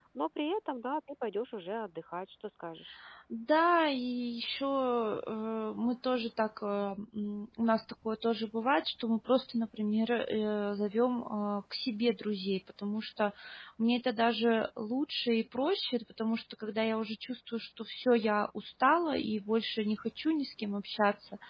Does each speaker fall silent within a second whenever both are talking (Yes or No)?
Yes